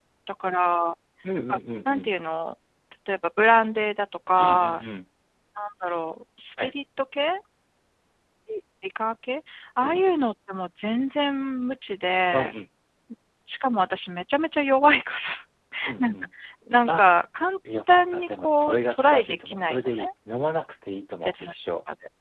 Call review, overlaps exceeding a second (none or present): present